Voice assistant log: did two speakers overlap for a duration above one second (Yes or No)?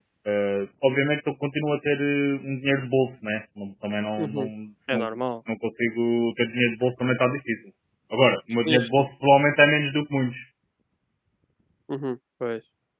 No